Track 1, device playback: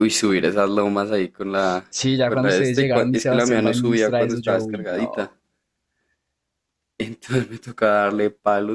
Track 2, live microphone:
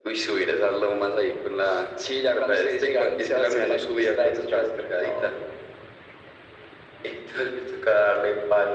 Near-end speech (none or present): none